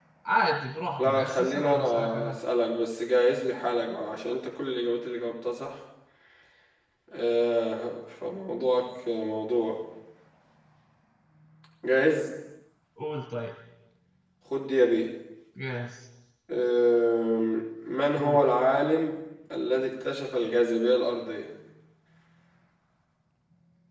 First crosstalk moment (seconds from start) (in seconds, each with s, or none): 1.0 s